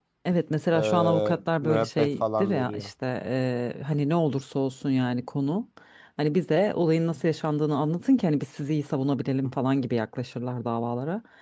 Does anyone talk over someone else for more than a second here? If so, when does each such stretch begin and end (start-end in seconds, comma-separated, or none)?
0.7-2.9